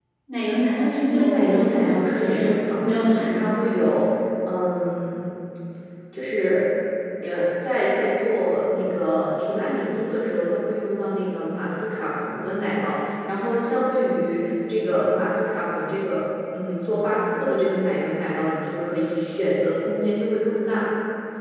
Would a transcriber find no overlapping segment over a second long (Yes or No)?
No